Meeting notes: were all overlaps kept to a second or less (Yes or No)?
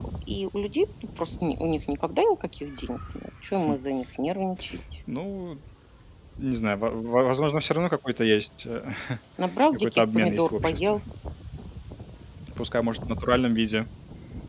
No